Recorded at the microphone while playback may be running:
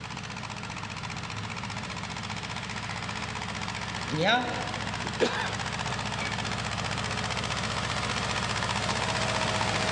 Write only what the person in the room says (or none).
Yeah.